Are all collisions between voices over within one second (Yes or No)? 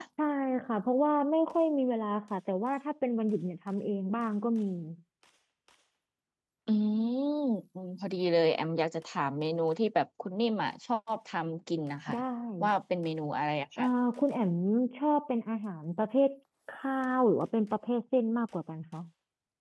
Yes